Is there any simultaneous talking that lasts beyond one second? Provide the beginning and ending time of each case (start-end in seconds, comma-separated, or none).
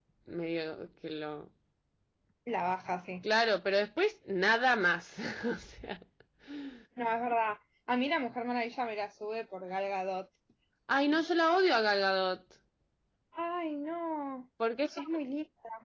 none